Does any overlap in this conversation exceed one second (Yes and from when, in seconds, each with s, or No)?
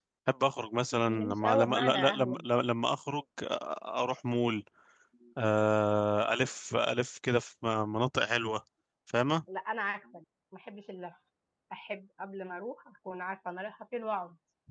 Yes, from 1.1 s